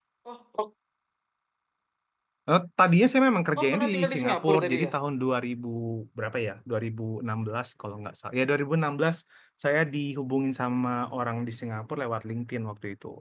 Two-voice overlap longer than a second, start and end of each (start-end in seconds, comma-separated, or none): 3.6-4.9